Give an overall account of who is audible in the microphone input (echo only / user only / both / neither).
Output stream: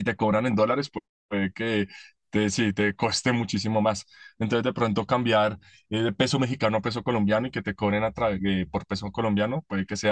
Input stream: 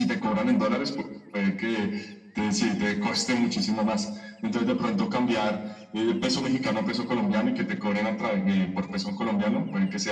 echo only